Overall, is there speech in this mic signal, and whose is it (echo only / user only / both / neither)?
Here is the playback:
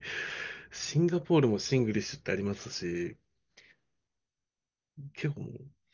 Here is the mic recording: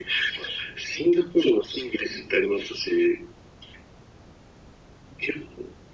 echo only